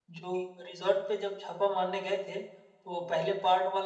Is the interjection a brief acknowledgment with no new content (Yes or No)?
Yes